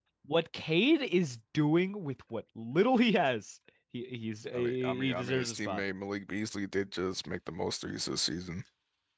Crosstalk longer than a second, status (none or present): present